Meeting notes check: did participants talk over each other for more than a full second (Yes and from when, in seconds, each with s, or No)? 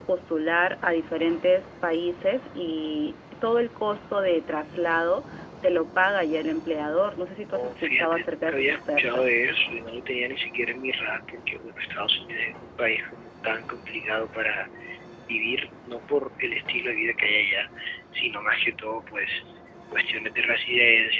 Yes, from 7.5 s